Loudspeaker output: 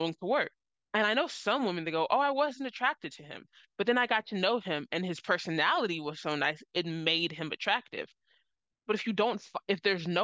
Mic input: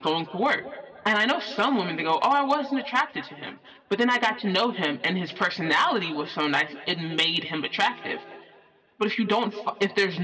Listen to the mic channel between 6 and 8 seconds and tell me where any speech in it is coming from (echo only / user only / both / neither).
echo only